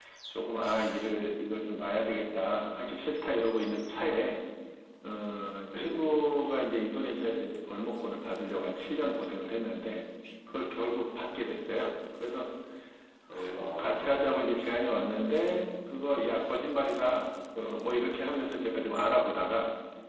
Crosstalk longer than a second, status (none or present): none